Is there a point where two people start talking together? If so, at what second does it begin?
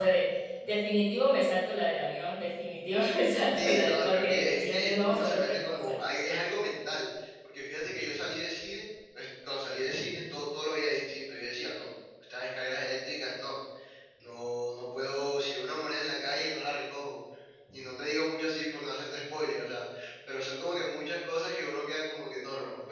4 s

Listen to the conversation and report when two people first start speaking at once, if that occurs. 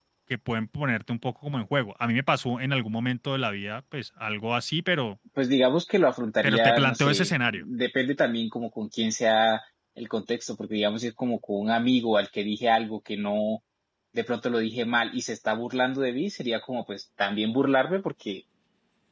6 s

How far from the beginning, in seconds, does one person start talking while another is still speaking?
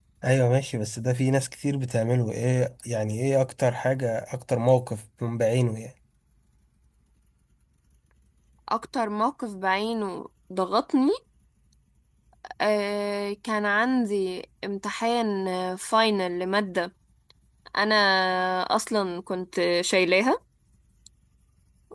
none

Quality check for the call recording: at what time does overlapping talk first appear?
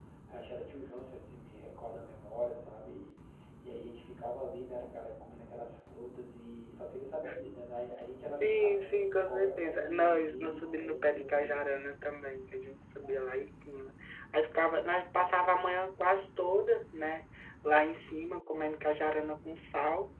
8 s

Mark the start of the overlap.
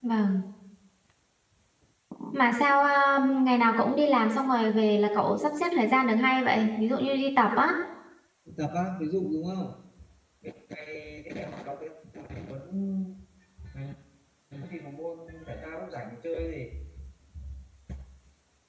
none

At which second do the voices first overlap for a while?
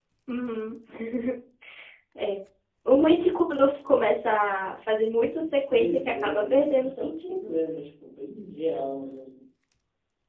6 s

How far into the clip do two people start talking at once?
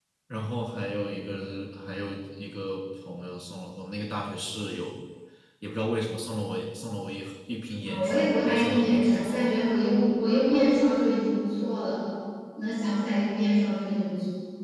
8 s

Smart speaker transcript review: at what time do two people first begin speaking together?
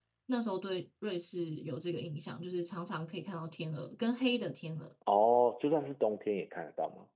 none

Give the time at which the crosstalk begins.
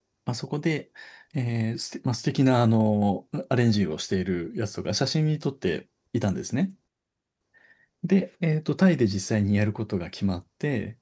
none

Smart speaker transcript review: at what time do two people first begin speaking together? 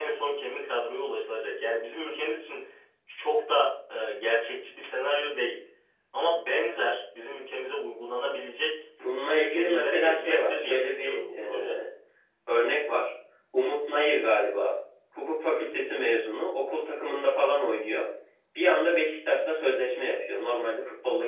9 s

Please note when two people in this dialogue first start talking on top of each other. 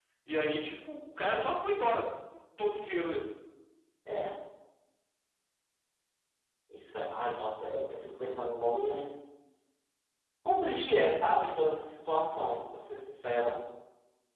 none

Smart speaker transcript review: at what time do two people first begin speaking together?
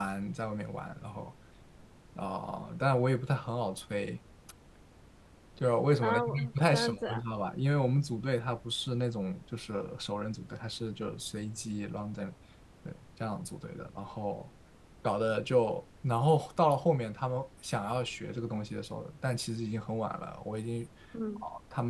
6 s

